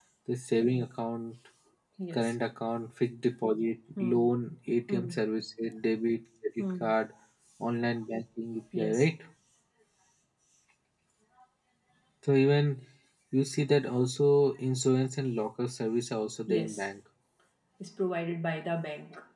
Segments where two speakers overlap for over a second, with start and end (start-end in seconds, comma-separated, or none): none